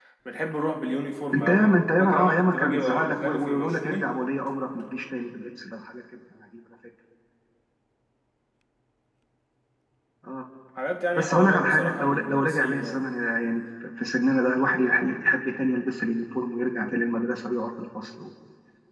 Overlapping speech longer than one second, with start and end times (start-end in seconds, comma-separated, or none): 1.3-4.1, 11.2-13.0